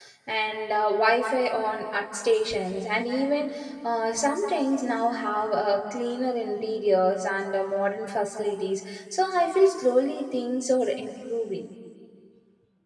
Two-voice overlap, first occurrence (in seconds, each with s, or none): none